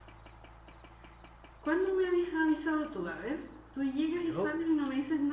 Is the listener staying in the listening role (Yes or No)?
Yes